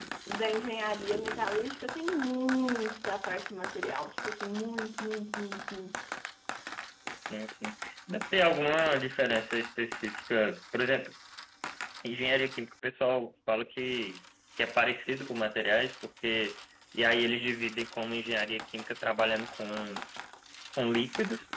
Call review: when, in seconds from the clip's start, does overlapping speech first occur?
none

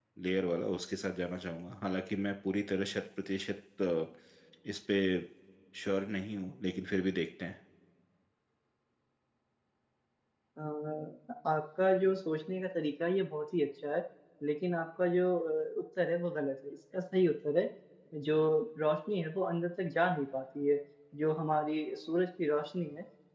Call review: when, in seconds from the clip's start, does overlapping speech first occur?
none

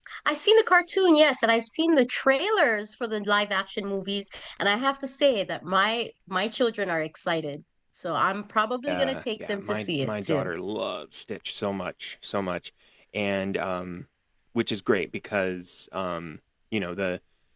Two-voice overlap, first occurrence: 9 s

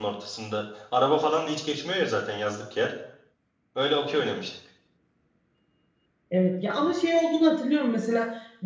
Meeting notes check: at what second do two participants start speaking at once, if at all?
none

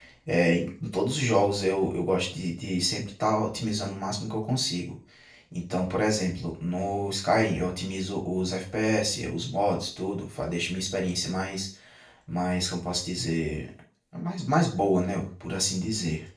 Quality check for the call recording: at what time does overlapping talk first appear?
none

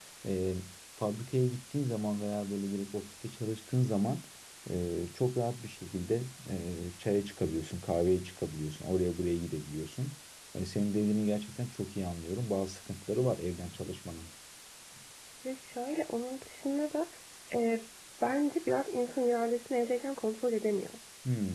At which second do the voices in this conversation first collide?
none

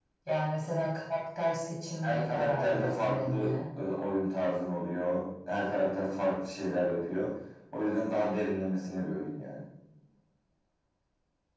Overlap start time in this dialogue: 2 s

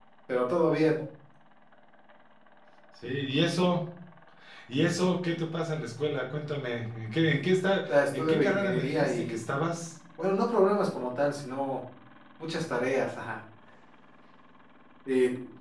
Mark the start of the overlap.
8 s

